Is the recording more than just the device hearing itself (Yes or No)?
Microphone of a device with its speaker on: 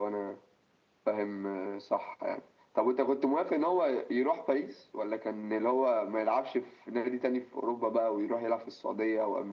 No